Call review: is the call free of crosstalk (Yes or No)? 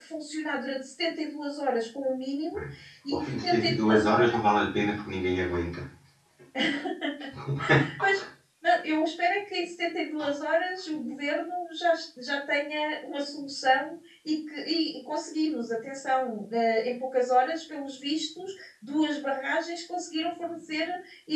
No